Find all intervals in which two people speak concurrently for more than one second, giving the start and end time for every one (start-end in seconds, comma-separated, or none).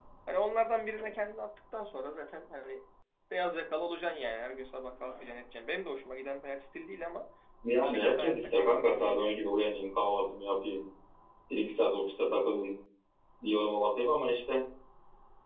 7.8-9.4